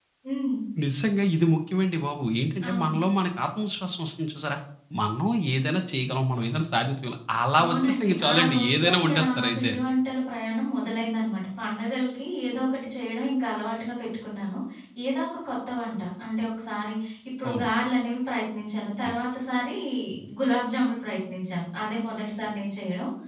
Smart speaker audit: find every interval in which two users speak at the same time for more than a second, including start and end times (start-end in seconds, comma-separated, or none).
7.6-9.7